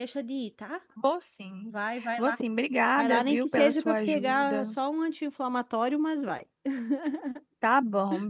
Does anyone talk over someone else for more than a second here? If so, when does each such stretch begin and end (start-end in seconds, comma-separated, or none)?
3.0-4.8